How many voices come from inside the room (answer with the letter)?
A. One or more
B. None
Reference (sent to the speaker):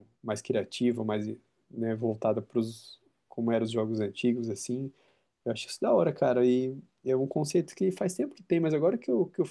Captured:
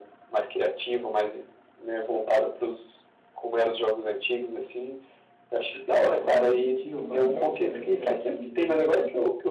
A